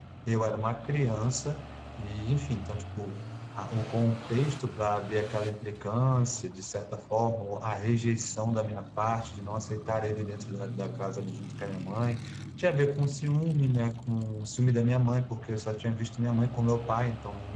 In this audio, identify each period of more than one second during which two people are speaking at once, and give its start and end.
none

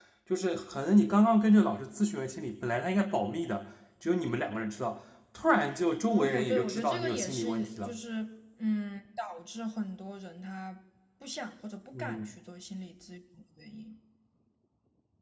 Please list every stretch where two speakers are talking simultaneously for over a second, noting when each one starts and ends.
6.1-8.0

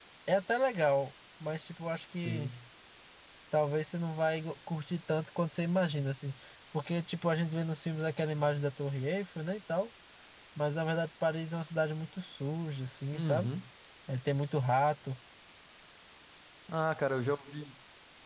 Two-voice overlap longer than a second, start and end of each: none

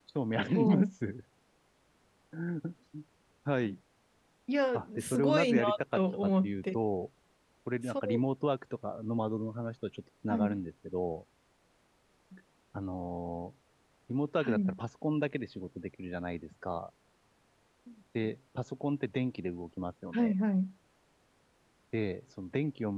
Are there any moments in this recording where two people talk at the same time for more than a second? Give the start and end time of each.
4.7-6.8

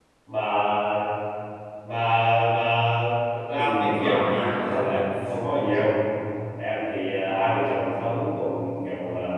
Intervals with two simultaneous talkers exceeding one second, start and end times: 3.6-5.1

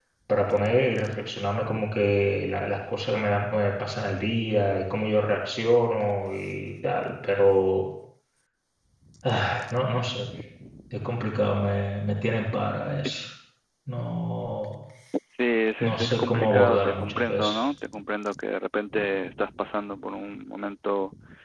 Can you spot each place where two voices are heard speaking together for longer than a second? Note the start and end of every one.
15.8-17.6

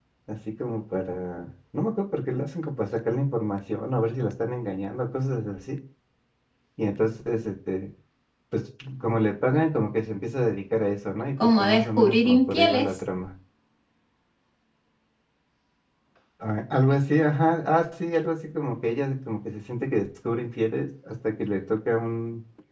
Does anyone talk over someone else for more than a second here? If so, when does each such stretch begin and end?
11.4-12.9

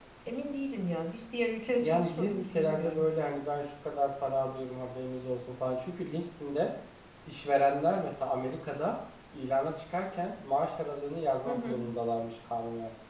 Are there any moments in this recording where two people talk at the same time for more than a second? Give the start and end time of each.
1.8-3.0

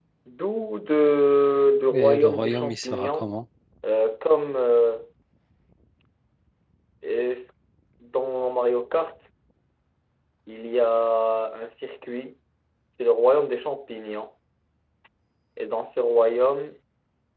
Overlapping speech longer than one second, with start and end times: 1.9-3.3

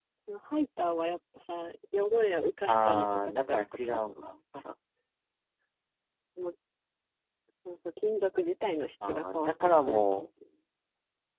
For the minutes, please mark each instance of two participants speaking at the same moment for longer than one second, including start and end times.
2.7-4.3, 9.1-10.3

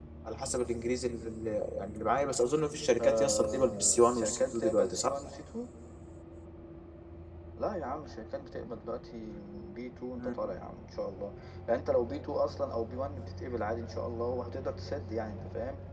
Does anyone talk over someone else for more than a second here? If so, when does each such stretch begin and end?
3.0-5.1

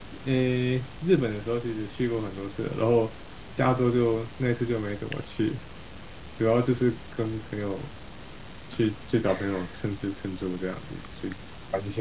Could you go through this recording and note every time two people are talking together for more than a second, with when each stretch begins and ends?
none

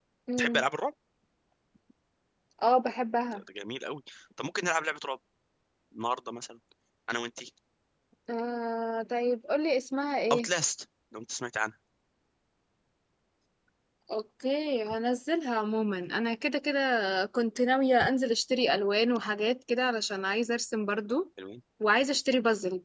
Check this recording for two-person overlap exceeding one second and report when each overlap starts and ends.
none

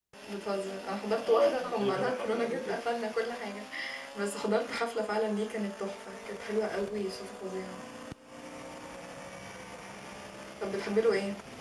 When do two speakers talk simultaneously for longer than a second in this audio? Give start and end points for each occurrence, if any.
1.1-2.8

